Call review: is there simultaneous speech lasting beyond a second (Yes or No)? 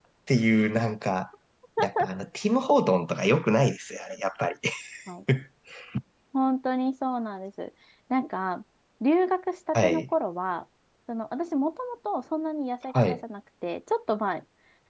No